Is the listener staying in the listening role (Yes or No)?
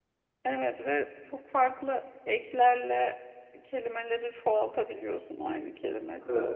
No